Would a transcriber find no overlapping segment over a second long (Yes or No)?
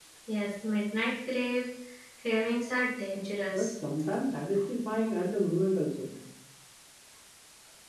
Yes